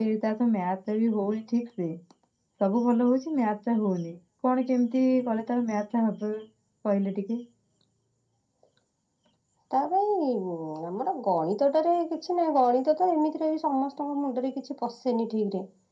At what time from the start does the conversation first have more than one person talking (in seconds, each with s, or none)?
none